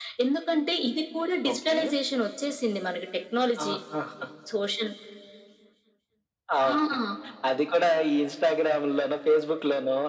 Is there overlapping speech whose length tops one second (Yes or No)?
No